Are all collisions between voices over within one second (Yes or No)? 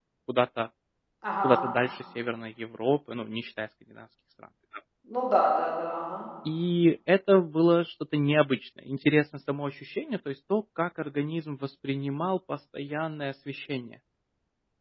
Yes